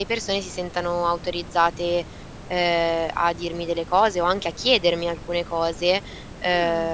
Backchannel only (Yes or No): Yes